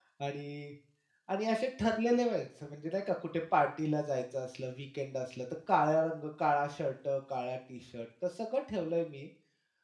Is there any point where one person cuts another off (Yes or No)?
No